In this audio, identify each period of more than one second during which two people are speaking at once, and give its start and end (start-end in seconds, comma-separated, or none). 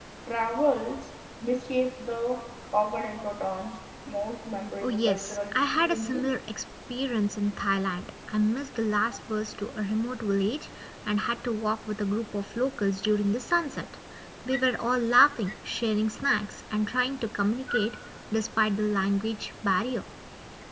4.8-6.3